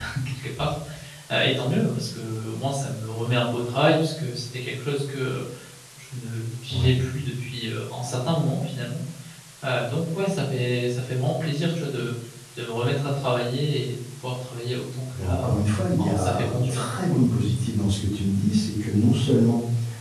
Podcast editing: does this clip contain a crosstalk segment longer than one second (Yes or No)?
Yes